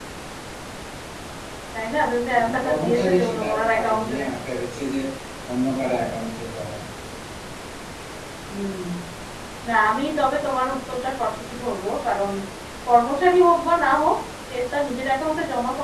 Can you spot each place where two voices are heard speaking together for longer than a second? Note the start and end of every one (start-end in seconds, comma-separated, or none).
2.4-4.1